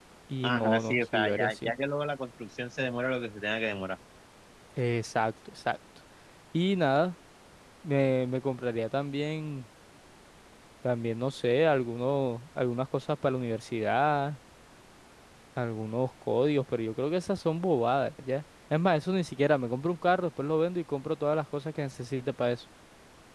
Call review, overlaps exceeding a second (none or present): present